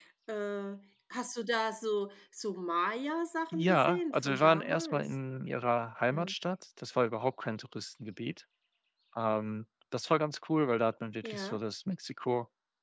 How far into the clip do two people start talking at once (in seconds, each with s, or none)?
3.5 s